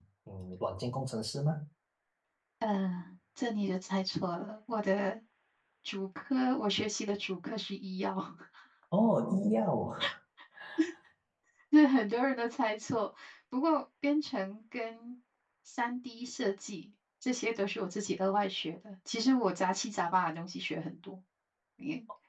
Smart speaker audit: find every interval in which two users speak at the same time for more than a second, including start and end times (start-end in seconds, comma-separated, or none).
none